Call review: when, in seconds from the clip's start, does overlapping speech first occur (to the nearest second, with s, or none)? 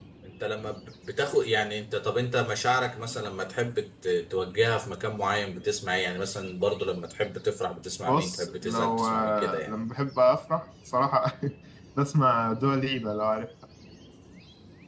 8 s